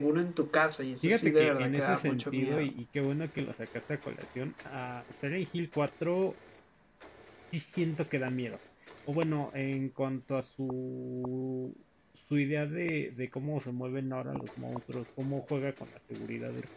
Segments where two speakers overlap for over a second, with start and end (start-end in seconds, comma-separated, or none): 1.0-2.7